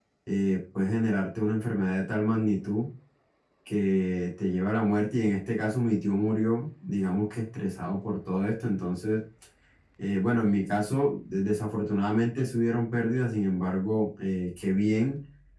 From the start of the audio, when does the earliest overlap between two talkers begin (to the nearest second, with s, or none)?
none